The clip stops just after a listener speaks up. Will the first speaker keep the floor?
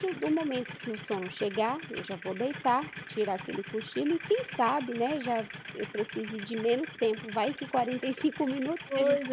No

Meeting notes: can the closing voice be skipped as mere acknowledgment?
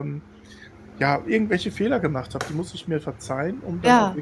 Yes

